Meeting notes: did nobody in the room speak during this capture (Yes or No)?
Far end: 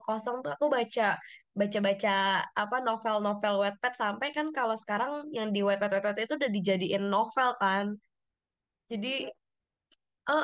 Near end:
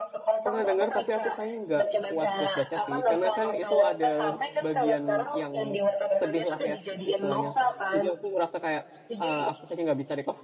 No